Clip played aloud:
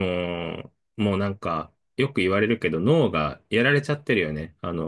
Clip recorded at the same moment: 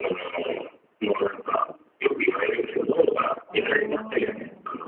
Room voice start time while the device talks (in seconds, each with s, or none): 3.4 s